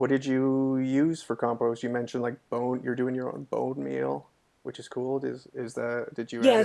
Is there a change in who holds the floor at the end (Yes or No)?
Yes